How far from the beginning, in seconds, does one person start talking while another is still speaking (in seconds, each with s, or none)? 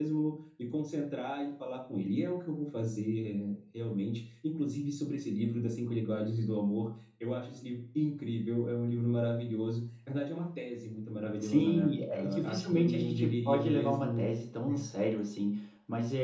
11.4 s